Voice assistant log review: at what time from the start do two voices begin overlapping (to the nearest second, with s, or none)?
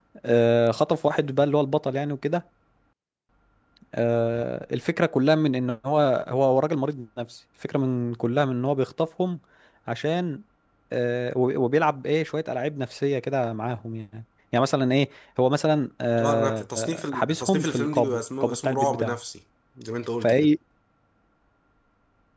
16 s